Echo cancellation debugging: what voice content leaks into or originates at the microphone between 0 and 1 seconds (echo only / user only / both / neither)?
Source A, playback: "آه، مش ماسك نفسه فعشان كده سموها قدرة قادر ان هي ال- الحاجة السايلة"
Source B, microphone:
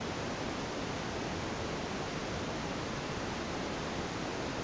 neither